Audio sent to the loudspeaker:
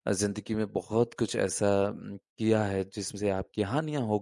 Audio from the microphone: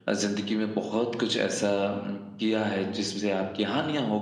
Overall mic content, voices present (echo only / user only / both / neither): echo only